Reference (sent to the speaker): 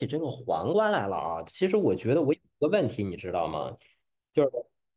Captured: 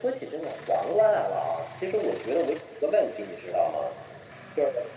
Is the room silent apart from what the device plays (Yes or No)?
Yes